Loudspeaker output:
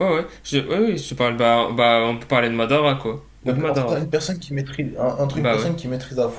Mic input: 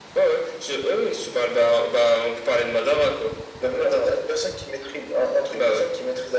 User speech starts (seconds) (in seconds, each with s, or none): none